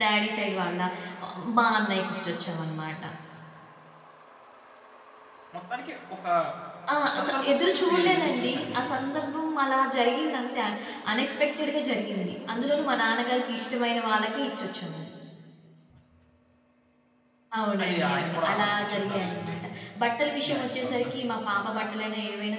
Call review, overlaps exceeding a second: present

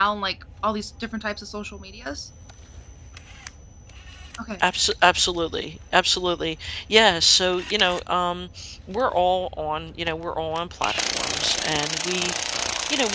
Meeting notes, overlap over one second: none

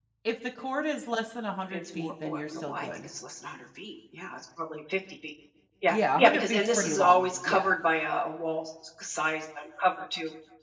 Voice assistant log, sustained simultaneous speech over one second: present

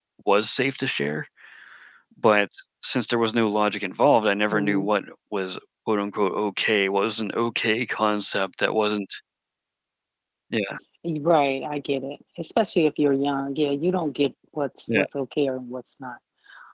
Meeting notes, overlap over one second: none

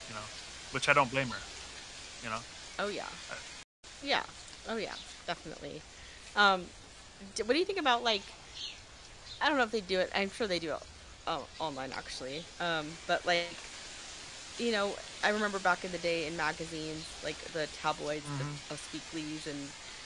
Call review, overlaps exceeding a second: none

